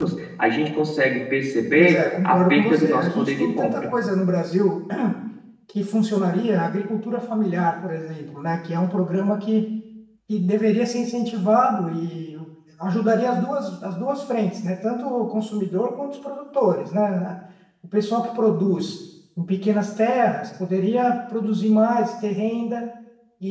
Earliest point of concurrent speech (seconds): 1.8 s

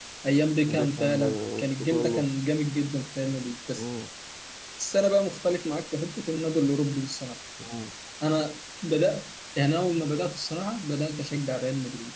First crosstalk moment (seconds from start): 0.7 s

